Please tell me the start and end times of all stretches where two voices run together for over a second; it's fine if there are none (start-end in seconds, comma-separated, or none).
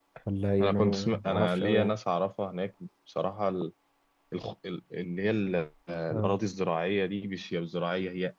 0.6-1.9